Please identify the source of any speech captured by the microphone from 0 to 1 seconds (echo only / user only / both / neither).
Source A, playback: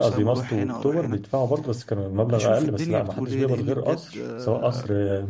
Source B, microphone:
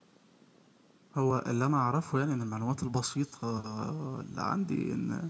neither